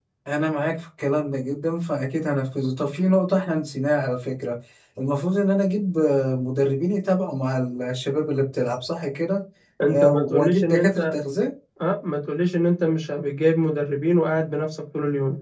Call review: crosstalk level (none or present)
present